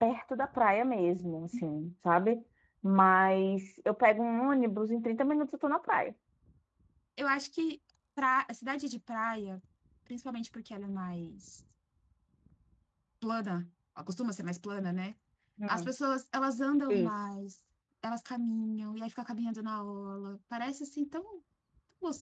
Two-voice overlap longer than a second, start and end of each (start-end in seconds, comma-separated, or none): none